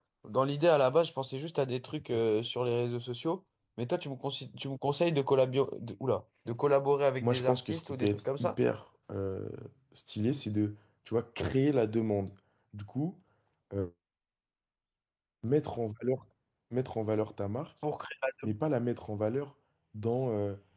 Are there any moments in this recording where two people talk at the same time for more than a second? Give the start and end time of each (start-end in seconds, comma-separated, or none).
7.2-8.6